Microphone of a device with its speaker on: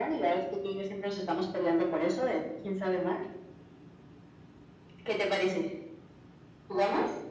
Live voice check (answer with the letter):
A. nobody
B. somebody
A